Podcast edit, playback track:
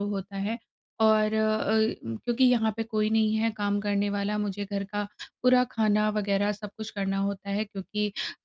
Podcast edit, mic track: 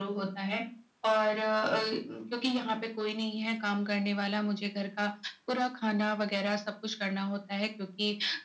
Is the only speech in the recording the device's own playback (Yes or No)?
Yes